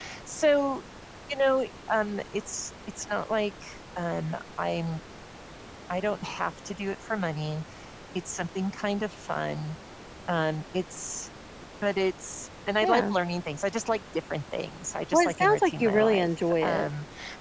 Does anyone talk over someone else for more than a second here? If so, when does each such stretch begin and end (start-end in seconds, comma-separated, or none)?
15.1-16.9